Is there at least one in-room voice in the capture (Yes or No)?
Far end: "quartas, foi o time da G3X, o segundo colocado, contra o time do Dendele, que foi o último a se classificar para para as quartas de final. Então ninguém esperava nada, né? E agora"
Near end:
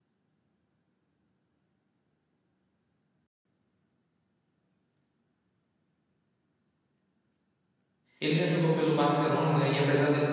Yes